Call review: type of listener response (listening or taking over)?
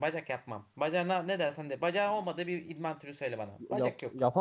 taking over